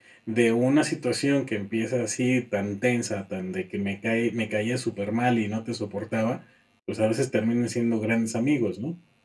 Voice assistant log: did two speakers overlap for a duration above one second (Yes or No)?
No